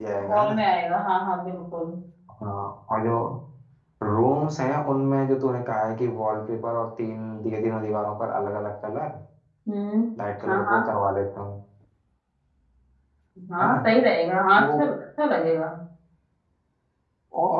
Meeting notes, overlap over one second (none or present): none